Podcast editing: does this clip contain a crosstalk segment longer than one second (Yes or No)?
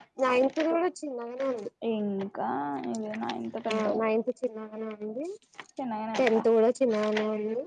No